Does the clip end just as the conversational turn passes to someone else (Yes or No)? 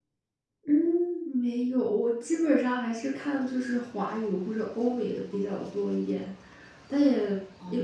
No